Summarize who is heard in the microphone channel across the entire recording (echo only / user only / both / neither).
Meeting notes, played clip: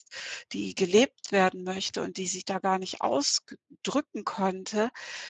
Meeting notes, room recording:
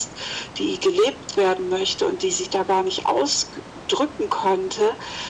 echo only